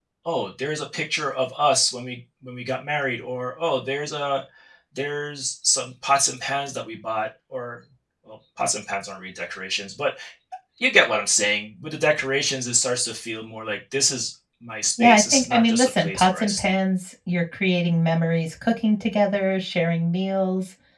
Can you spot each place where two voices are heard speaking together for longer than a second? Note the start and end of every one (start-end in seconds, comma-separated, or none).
15.0-16.8